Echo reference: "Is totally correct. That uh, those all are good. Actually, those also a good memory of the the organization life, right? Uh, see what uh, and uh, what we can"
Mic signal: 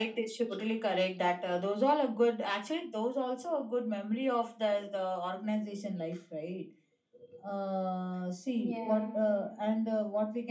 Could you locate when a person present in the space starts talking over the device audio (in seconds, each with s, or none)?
8.6 s